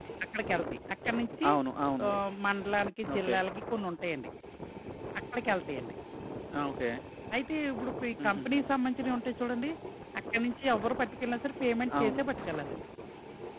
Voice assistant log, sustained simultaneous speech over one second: none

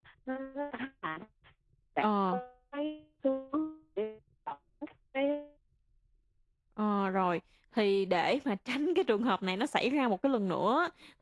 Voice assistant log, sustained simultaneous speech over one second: none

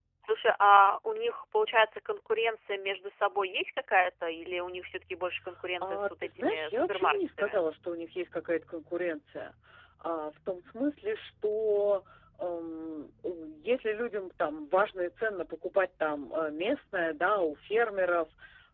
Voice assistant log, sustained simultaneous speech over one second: present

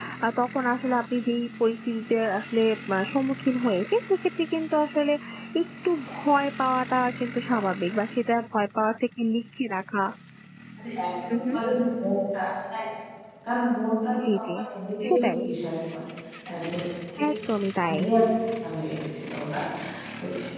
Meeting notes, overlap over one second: none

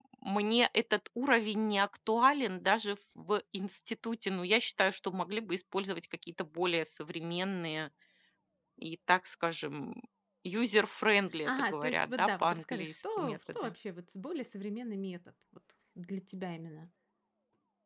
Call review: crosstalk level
present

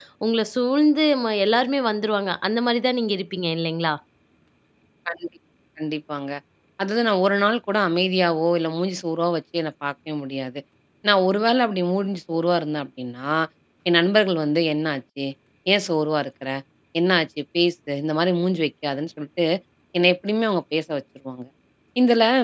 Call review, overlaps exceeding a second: none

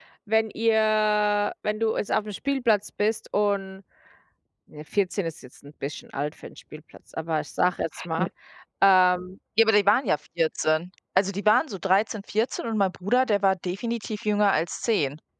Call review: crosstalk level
none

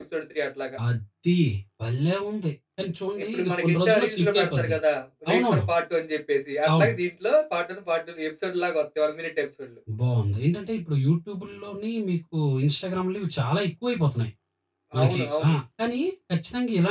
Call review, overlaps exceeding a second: present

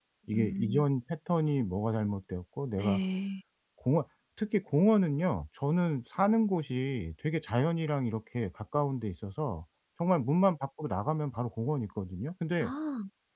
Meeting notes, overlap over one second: none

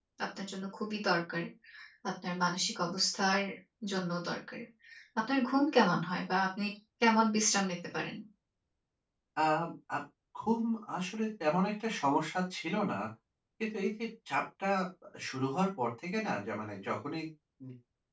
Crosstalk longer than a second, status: none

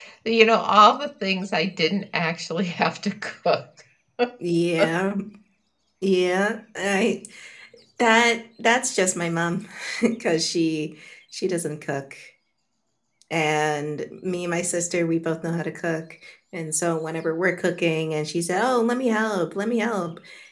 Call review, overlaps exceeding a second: none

